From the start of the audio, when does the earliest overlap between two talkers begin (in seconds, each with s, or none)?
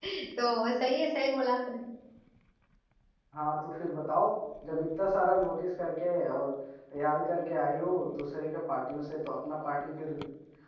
none